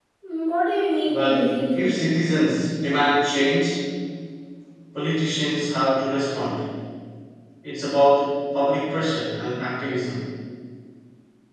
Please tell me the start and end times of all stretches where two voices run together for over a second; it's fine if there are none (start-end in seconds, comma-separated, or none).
1.1-2.3